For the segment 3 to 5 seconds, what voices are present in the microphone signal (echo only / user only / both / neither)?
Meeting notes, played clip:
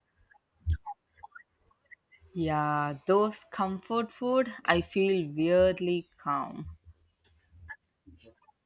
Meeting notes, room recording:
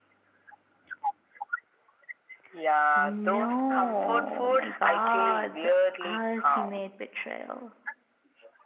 both